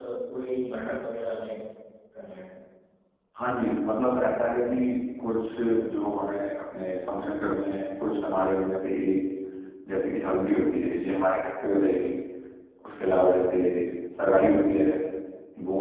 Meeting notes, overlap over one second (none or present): none